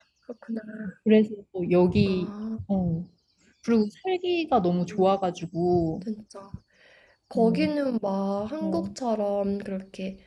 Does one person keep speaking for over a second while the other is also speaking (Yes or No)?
No